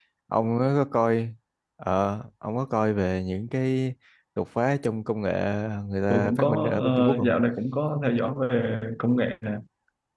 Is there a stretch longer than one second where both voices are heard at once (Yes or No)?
Yes